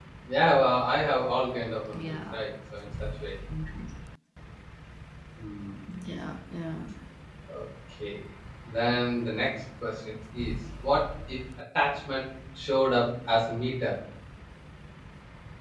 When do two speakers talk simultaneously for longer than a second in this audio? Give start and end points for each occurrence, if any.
none

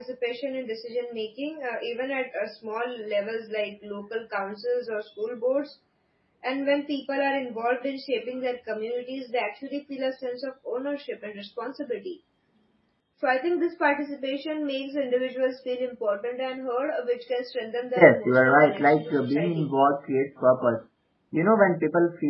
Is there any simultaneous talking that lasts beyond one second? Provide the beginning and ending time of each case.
18.0-19.7

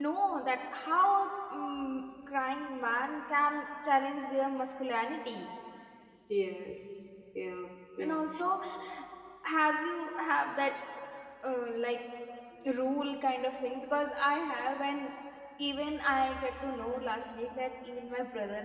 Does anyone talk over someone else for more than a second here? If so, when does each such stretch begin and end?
none

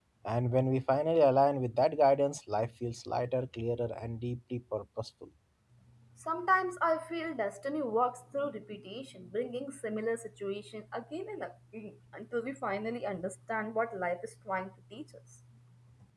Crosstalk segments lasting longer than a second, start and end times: none

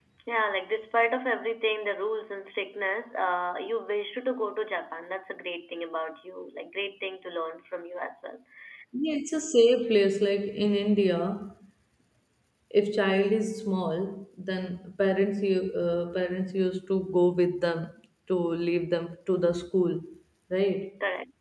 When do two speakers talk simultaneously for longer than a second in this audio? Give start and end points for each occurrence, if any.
none

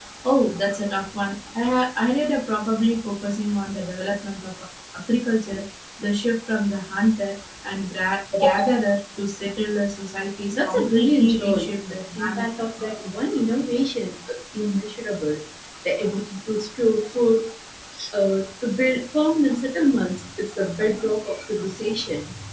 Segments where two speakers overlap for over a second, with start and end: 10.5-12.4

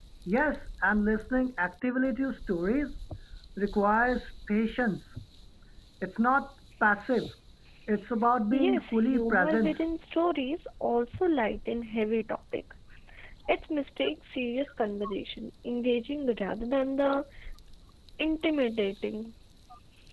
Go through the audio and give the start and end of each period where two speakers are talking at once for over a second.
8.5-9.8

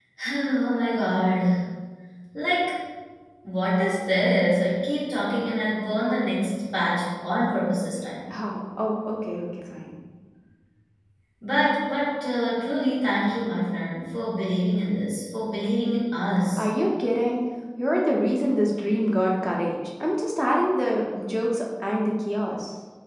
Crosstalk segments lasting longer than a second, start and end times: none

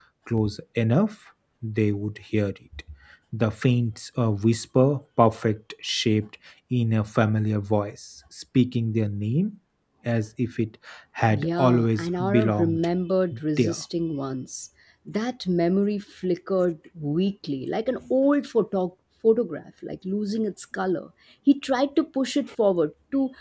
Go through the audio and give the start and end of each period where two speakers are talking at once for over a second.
11.3-12.9

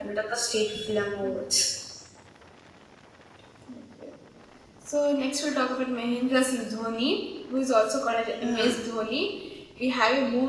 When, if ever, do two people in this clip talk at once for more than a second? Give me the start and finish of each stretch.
none

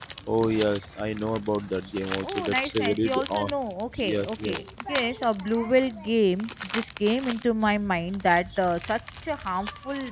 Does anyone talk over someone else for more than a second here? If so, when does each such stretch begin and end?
2.2-3.5

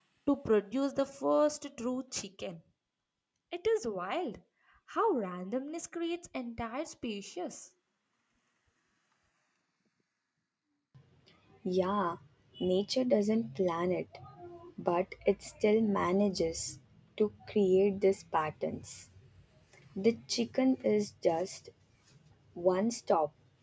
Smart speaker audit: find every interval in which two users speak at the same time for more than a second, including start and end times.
none

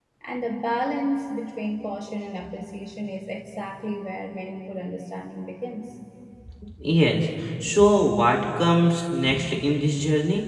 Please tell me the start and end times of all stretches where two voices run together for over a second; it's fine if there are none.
none

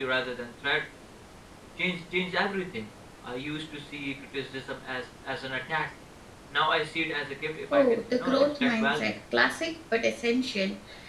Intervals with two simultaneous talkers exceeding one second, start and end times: 7.7-9.1

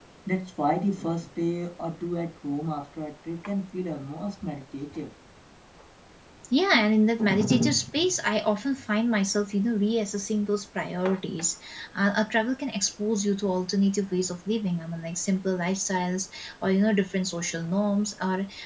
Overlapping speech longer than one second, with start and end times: none

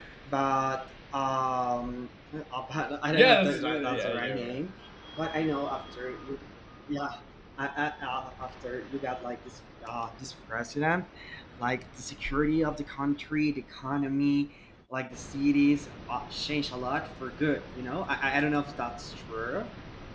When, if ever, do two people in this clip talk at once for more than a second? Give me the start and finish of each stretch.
3.1-4.6

